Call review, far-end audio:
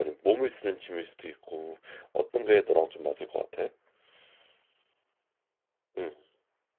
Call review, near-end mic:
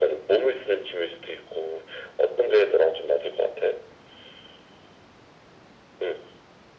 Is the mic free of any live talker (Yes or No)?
Yes